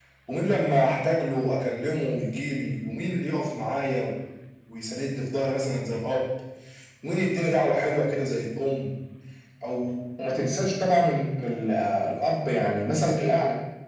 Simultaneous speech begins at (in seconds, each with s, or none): none